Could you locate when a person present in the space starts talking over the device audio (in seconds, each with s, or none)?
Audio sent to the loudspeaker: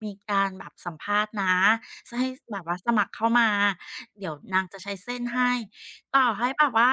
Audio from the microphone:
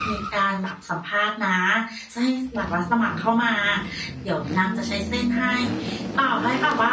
none